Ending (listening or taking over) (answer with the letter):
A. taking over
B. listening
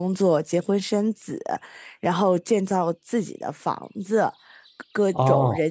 B